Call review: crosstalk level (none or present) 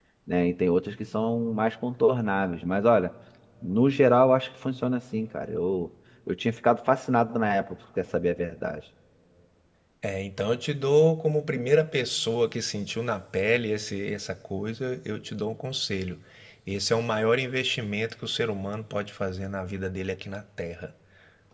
none